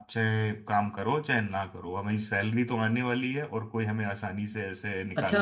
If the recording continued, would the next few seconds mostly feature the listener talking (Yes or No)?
Yes